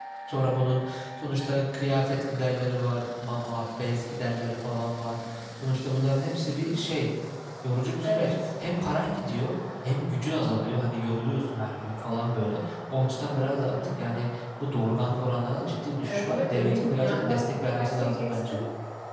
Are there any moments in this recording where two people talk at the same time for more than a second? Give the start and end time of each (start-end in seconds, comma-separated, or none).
16.0-18.6